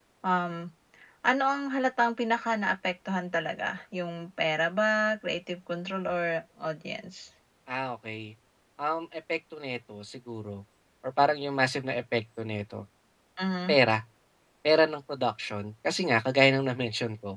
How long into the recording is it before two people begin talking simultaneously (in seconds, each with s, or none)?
none